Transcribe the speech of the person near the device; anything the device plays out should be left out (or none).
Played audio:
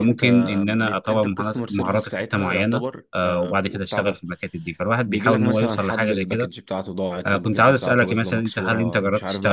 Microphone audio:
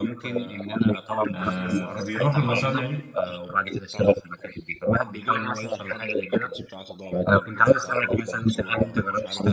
آه، فبيروح للمصانع دي